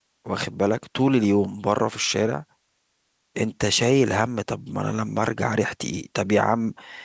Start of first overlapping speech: none

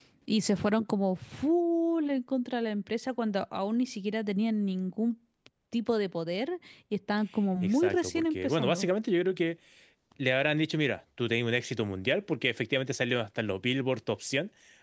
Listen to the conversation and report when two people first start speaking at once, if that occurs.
7.6 s

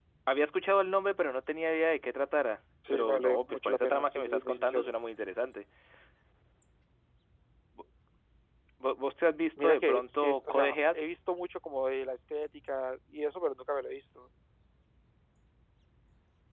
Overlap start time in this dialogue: 2.9 s

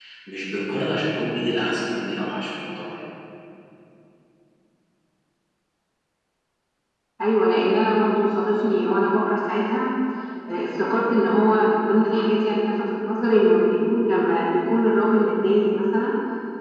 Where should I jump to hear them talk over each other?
none

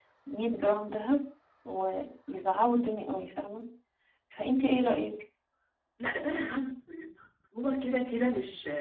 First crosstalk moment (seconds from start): none

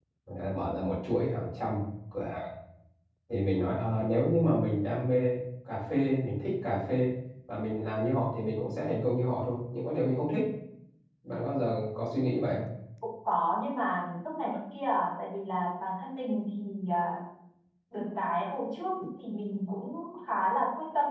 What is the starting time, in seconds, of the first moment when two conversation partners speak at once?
none

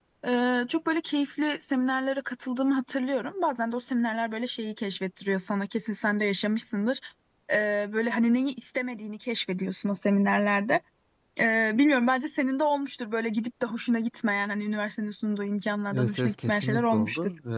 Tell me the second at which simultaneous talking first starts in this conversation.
15.9 s

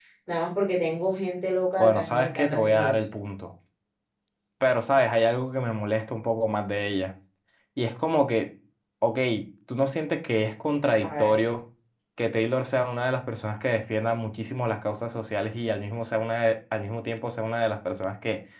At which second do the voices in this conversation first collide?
1.8 s

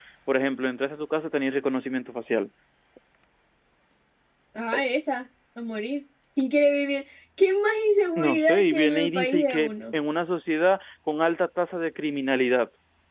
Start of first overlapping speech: 8.2 s

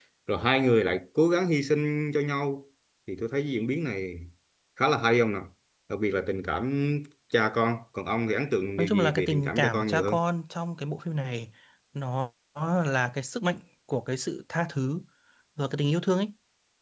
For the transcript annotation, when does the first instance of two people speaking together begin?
8.8 s

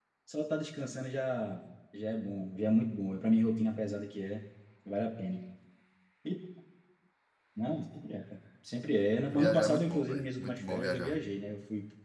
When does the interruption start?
9.3 s

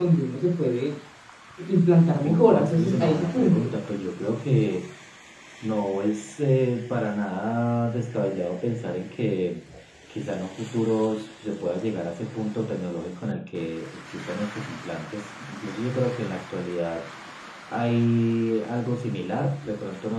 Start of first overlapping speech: 2.2 s

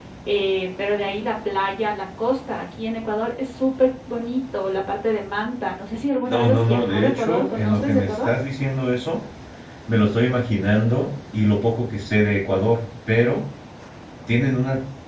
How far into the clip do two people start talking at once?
6.2 s

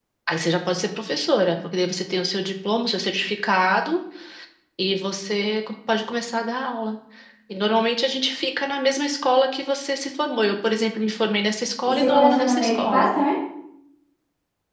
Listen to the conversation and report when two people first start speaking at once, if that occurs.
11.8 s

